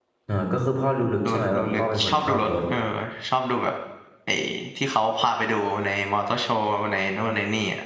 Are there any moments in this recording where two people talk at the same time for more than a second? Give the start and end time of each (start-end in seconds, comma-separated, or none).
1.2-2.5